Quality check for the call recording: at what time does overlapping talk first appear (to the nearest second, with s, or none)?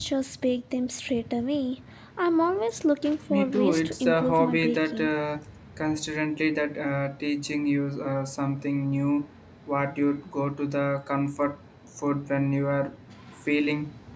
3 s